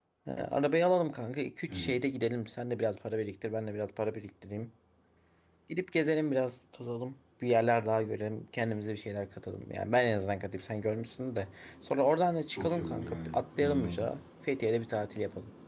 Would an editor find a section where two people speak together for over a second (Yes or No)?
Yes